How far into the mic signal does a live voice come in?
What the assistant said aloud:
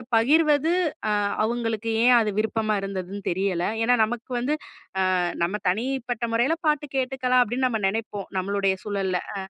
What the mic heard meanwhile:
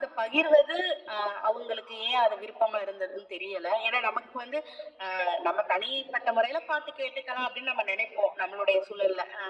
none

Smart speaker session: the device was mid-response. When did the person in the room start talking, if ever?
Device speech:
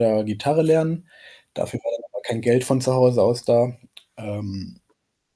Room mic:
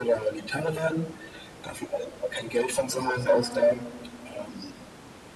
3.2 s

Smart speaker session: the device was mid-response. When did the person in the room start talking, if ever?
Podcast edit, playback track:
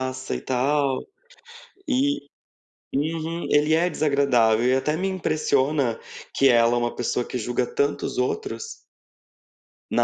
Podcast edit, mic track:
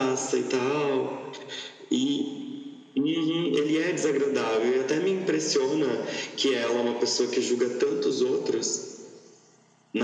none

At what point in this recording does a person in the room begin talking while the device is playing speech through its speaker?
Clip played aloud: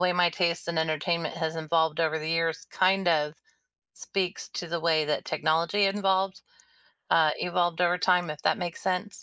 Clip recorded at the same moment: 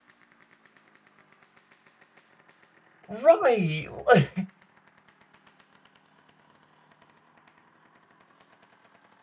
3.1 s

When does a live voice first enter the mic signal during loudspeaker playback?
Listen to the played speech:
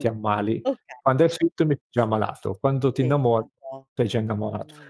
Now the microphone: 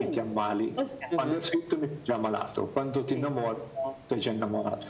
1.1 s

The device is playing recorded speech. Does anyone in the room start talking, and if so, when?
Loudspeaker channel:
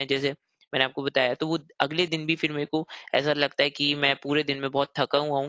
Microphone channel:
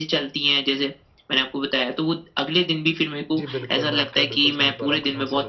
3.4 s

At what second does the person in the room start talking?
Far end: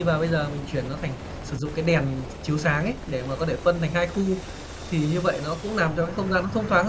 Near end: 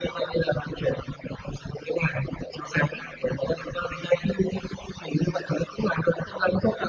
none

